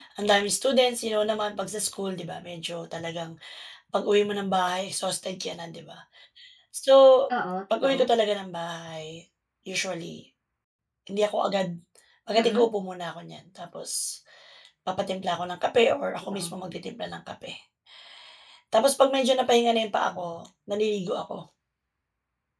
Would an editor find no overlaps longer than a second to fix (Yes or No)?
Yes